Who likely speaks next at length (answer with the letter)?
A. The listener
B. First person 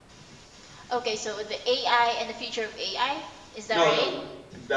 A